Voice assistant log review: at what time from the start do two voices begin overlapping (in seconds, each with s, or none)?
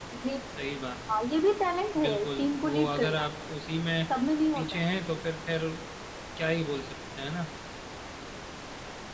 2.0 s